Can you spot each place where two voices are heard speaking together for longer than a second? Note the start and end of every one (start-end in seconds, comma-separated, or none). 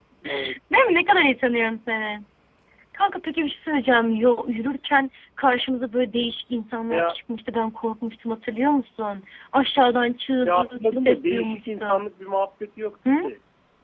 10.4-11.8